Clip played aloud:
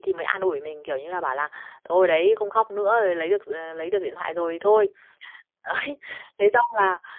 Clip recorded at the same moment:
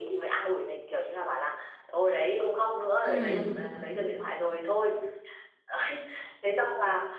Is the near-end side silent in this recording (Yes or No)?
No